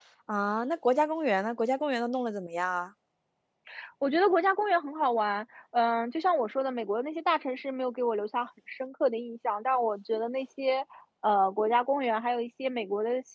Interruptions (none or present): none